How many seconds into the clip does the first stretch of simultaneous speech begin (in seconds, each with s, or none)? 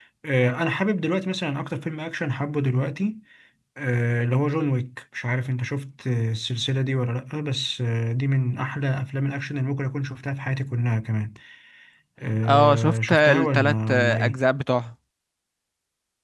12.5 s